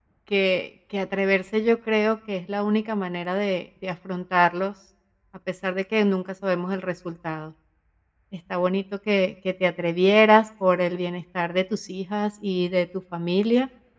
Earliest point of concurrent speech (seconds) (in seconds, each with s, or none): none